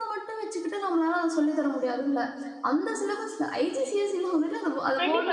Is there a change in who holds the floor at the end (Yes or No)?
Yes